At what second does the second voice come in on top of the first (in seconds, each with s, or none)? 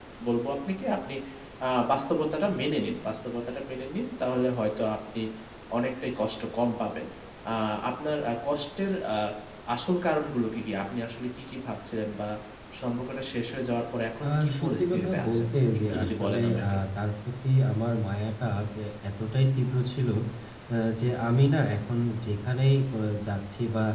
14.2 s